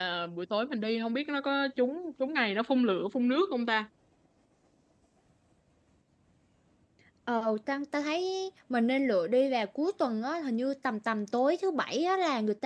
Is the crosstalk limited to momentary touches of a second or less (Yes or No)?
Yes